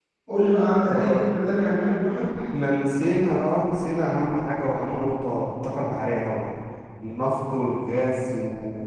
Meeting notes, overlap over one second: none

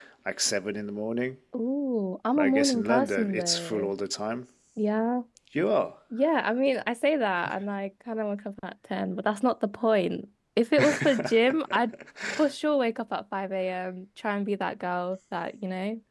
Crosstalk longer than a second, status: present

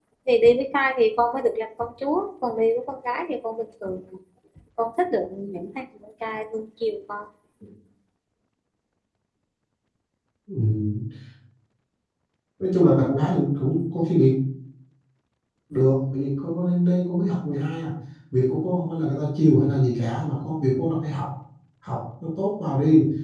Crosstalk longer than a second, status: none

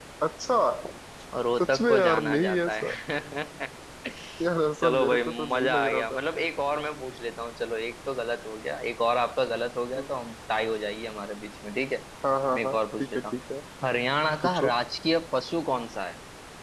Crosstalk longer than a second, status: present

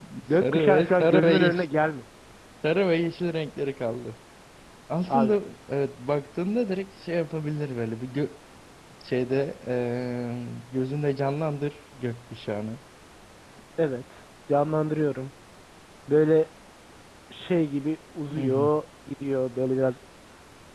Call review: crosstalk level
present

